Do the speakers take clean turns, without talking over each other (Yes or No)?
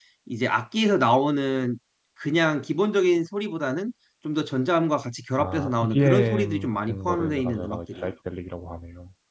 No